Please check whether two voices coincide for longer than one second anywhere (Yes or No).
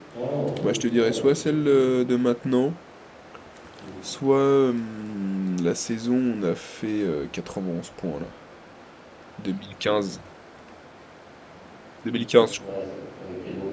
Yes